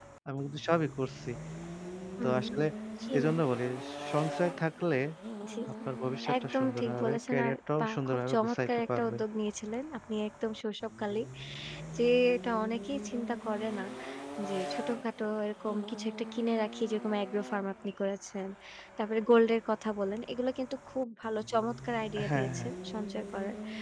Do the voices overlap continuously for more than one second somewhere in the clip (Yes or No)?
Yes